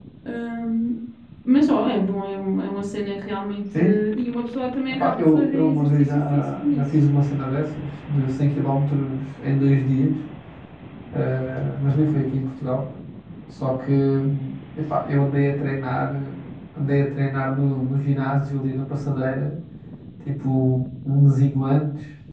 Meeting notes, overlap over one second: present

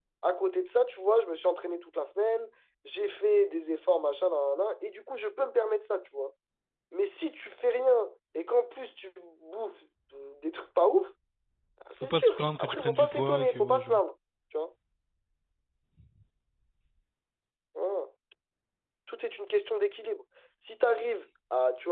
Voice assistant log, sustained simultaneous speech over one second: present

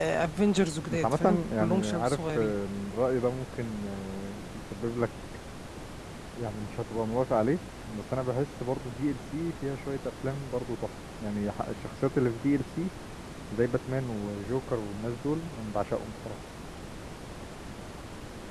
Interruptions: present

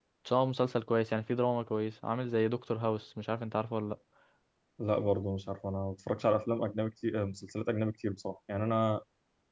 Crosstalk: none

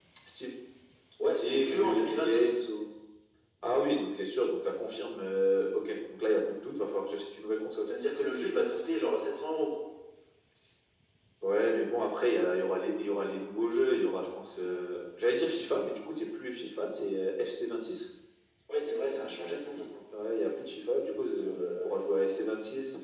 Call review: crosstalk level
present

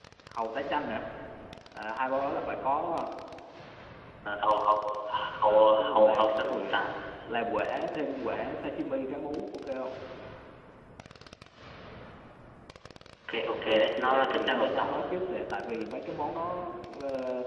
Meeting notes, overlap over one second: present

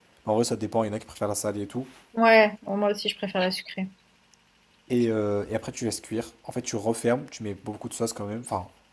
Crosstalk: none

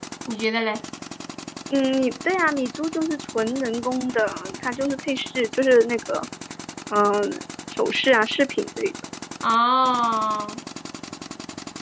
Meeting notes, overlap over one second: none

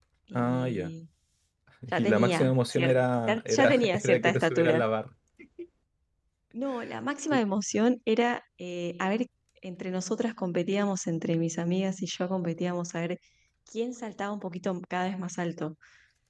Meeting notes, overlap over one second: present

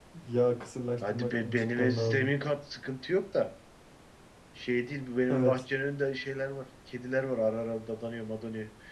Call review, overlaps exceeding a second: present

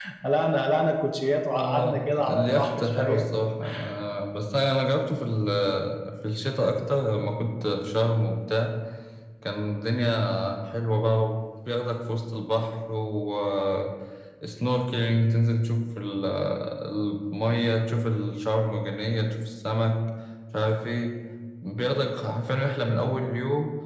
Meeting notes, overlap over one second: present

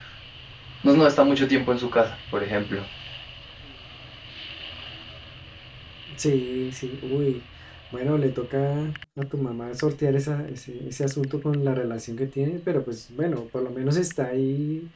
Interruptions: none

